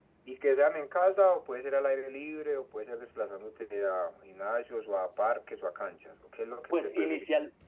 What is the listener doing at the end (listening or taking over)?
taking over